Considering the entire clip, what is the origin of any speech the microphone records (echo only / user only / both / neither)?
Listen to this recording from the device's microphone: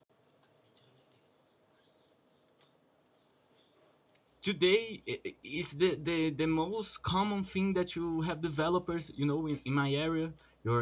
user only